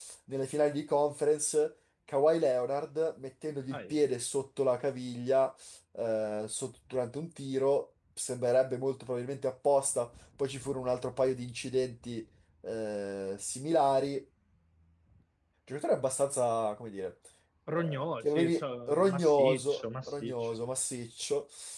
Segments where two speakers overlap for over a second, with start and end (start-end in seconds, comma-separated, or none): 17.7-20.3